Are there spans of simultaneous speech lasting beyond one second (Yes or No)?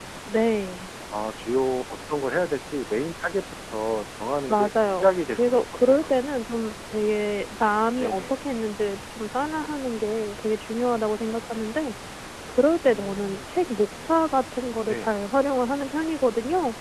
Yes